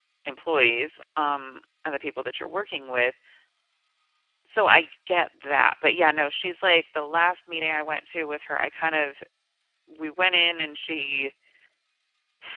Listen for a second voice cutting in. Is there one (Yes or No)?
No